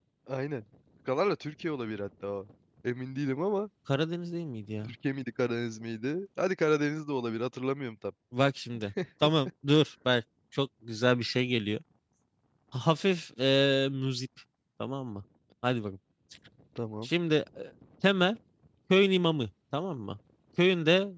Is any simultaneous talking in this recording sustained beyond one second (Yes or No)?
No